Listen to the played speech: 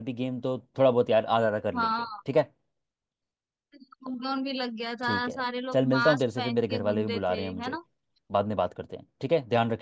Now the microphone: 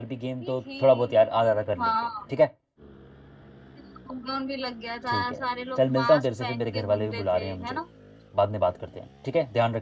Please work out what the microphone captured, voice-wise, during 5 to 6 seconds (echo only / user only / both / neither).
echo only